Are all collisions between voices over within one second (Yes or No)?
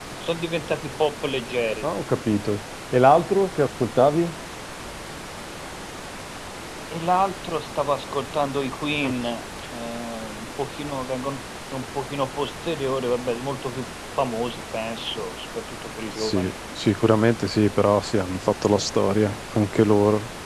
Yes